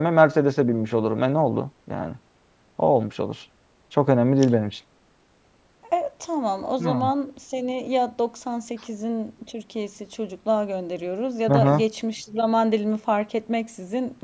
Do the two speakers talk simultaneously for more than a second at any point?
No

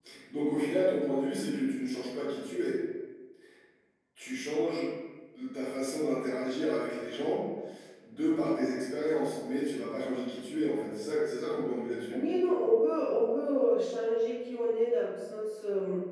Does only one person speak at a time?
Yes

